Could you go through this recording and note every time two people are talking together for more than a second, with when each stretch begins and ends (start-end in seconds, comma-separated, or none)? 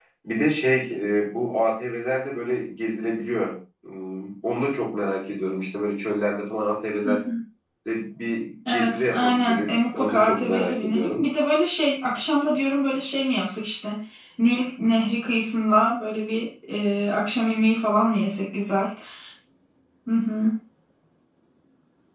8.7-11.2